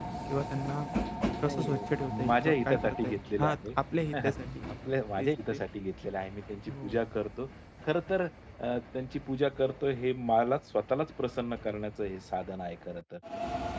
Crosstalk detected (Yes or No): Yes